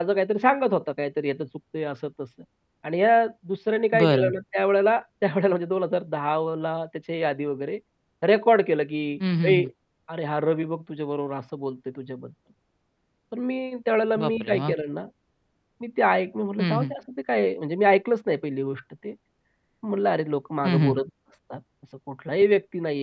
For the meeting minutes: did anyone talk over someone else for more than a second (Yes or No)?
No